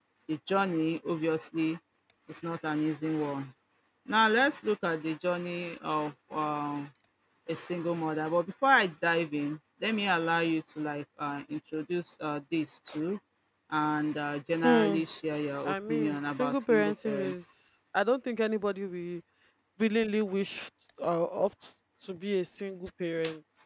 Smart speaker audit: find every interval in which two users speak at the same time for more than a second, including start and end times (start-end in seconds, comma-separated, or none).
15.6-17.3